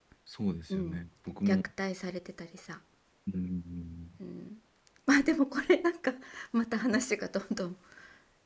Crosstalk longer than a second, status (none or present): none